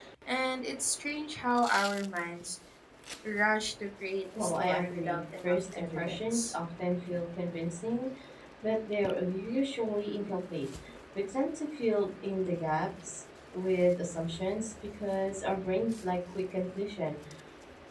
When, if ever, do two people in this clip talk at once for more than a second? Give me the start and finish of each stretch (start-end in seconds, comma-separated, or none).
4.4-6.5